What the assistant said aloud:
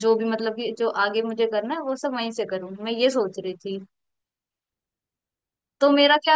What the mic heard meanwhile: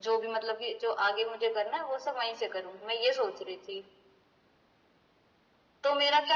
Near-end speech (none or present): none